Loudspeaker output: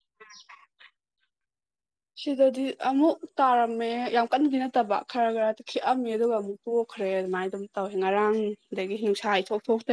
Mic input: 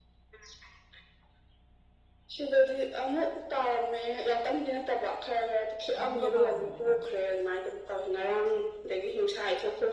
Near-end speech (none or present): present